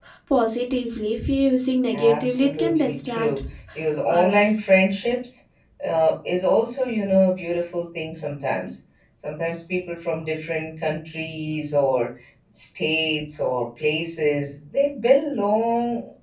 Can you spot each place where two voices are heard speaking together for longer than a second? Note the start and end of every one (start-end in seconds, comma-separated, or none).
1.9-3.4